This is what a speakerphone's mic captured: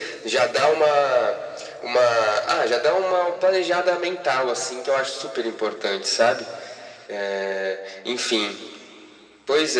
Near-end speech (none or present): none